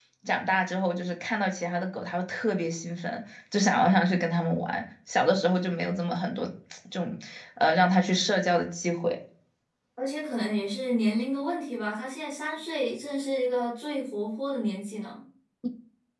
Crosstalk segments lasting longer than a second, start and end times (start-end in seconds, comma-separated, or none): none